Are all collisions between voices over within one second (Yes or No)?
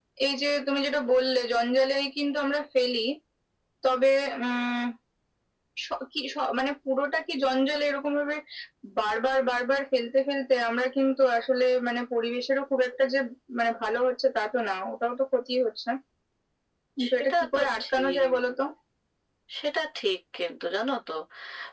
No